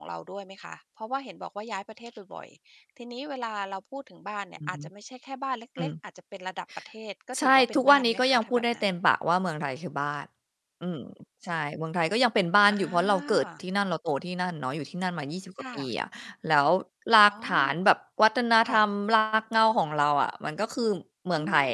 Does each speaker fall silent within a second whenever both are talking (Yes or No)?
No